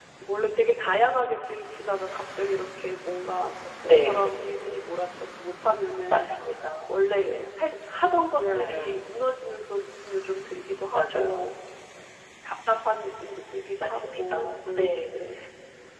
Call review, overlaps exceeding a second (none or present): present